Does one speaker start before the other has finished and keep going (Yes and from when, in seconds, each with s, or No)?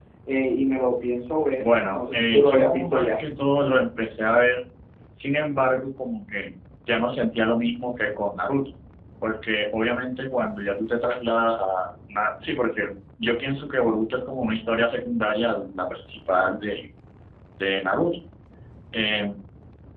Yes, from 1.6 s